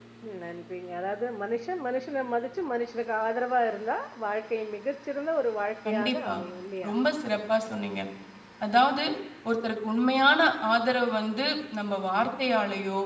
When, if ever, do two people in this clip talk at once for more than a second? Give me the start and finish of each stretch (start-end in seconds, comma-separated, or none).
none